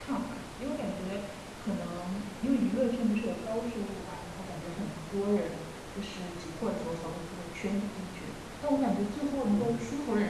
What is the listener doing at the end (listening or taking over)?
listening